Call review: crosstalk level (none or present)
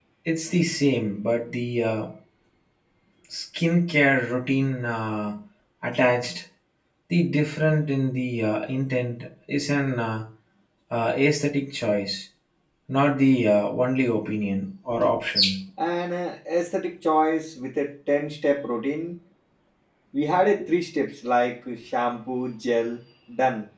none